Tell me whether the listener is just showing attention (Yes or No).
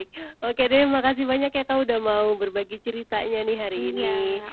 No